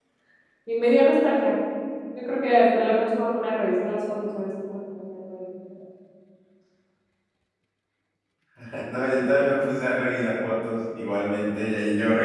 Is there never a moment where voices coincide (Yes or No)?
Yes